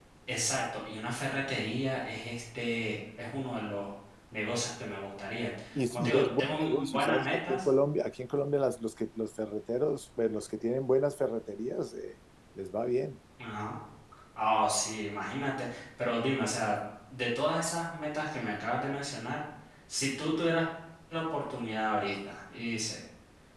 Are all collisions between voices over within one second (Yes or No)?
No